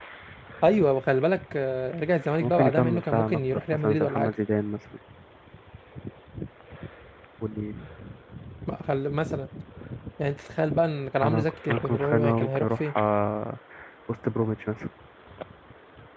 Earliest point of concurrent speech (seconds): 2.4 s

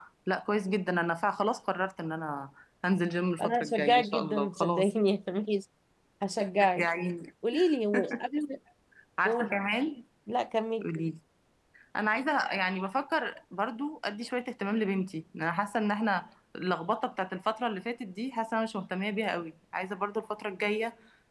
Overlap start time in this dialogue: 3.4 s

